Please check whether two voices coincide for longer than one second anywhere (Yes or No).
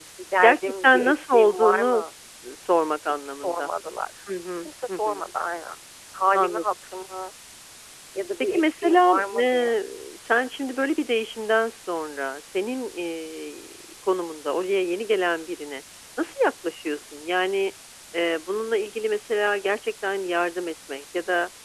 Yes